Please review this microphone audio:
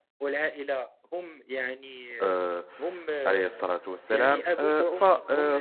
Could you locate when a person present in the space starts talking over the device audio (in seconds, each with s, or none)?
2.2 s